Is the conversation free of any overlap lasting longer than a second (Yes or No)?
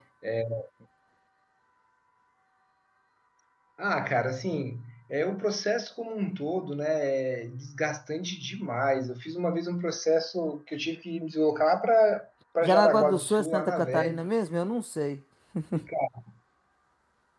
No